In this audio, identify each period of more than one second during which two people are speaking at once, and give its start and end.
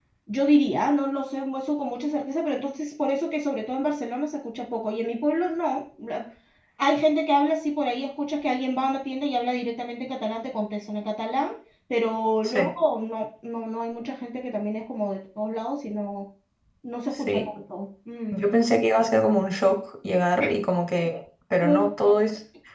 none

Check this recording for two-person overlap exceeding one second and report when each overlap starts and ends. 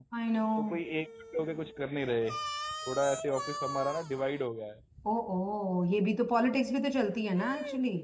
none

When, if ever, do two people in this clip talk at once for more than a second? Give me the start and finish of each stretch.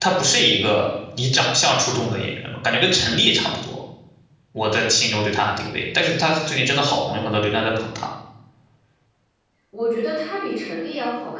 none

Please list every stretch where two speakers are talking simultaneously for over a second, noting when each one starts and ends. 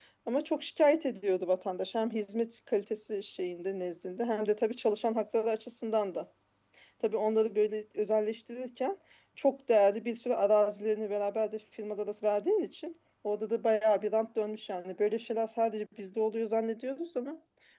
none

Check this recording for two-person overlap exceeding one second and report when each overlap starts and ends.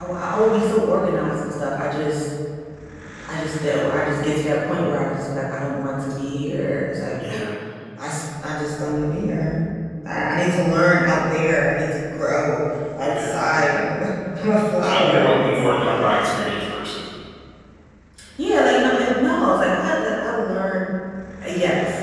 14.8-16.1

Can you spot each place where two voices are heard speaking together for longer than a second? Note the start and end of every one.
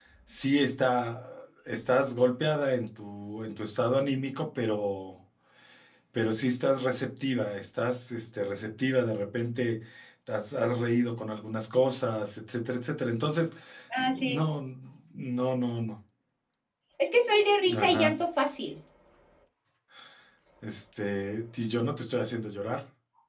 none

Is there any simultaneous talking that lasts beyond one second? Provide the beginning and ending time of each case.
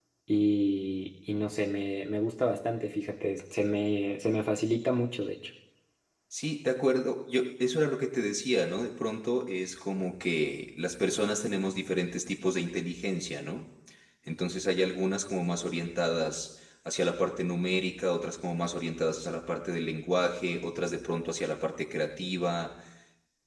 none

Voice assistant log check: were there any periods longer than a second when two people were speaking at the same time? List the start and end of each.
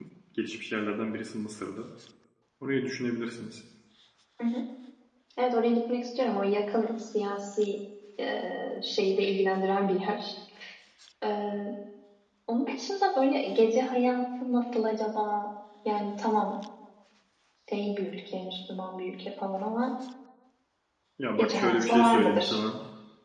21.4-22.6

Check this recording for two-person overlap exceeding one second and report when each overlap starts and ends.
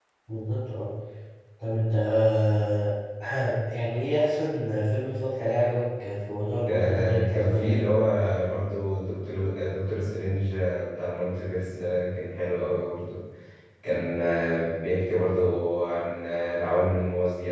6.7-7.9

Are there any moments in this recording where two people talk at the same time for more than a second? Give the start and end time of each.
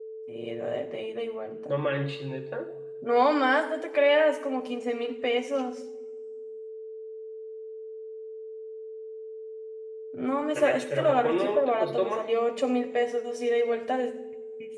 10.5-12.2

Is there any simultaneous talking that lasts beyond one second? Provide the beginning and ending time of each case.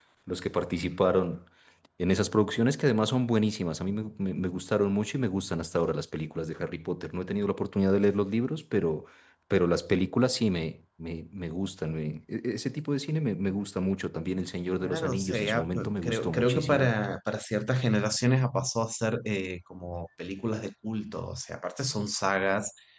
14.8-16.9

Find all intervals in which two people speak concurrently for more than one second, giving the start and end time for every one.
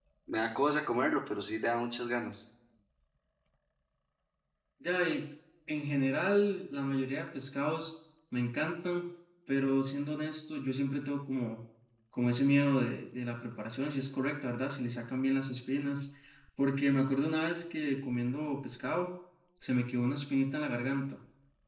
none

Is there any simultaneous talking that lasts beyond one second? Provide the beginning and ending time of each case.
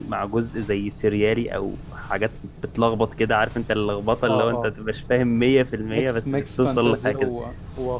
5.9-7.3

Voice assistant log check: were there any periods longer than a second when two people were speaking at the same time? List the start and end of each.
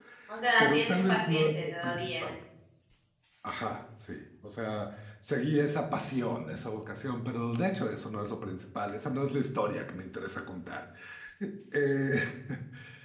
0.6-2.3

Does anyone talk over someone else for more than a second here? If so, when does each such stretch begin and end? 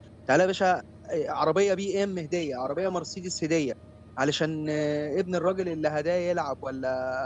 none

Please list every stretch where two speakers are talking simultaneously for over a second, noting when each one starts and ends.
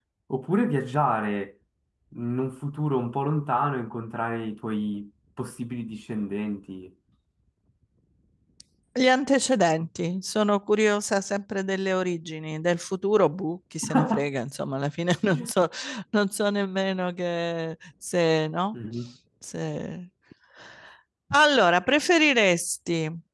none

